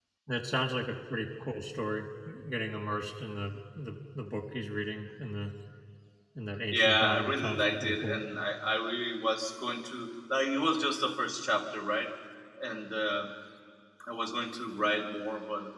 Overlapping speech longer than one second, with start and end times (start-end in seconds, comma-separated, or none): 6.7-8.2